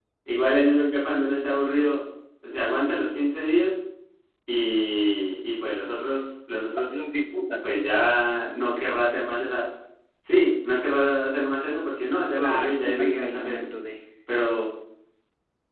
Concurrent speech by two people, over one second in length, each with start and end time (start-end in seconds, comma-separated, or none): 12.3-13.6